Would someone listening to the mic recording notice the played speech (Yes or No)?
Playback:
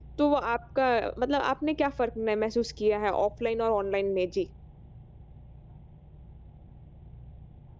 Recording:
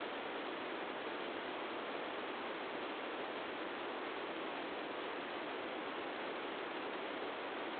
No